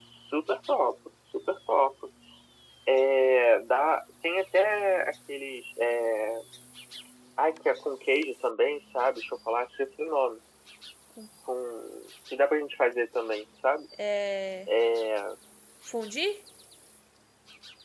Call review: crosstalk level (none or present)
none